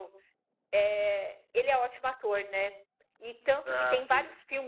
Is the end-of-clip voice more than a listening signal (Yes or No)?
No